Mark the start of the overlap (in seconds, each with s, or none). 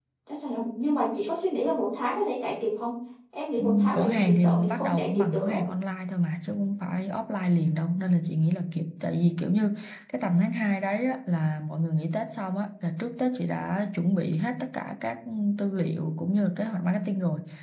3.6 s